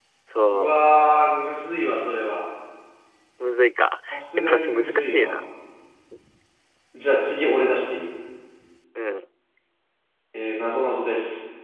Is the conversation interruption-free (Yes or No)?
No